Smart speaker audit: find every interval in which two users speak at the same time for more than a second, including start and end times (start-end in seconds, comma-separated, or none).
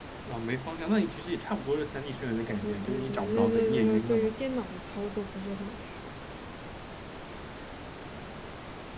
2.6-4.3